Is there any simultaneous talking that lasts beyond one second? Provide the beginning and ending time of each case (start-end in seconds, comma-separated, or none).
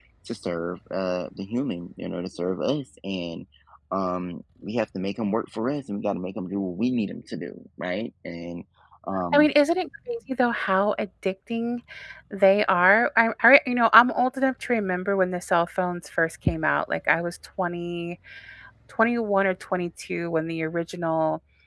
none